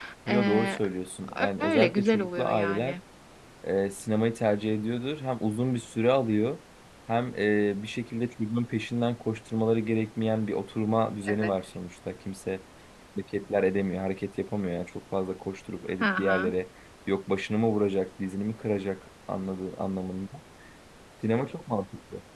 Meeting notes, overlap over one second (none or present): present